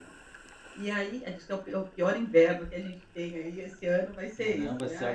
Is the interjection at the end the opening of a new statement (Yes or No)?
Yes